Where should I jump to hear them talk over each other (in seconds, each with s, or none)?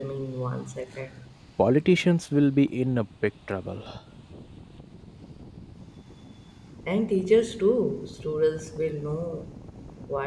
none